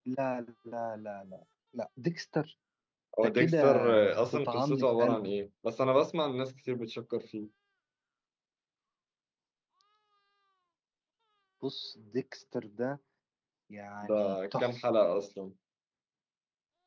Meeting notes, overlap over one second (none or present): present